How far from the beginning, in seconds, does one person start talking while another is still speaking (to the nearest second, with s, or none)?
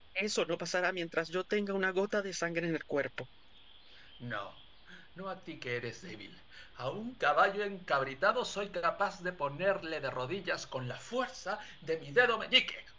none